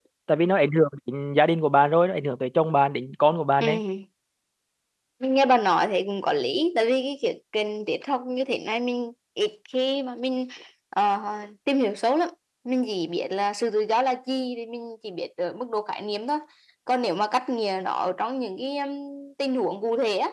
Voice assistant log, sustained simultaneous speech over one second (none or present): none